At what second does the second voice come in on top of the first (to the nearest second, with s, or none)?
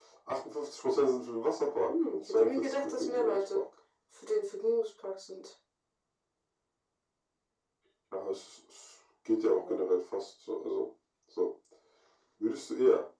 2 s